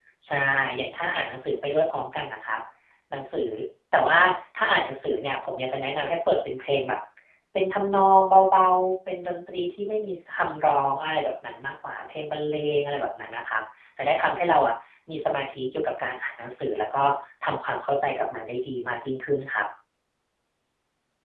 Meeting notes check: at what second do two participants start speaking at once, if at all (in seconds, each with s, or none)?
none